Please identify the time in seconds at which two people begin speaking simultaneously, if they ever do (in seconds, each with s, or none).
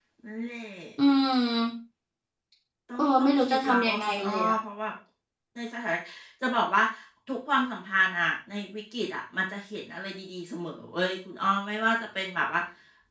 3.0 s